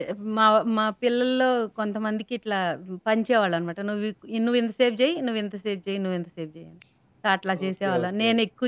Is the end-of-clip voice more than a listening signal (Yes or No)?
No